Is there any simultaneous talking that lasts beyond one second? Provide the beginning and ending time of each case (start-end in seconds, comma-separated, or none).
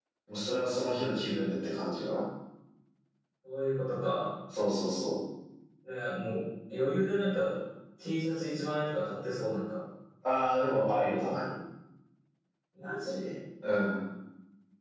none